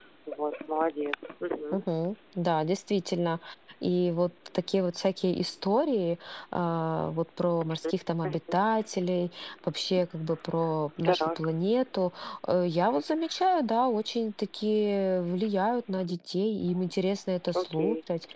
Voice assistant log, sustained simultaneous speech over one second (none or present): none